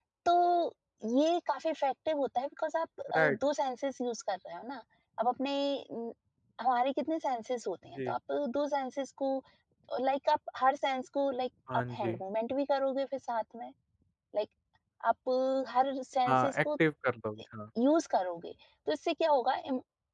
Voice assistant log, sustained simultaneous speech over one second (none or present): none